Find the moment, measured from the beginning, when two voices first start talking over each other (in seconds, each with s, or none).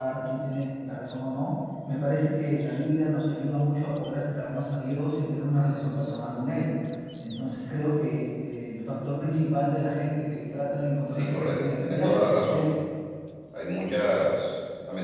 11.1 s